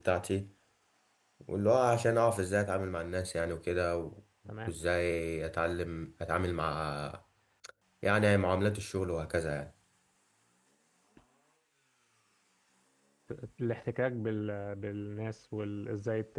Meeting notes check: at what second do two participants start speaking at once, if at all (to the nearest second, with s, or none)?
none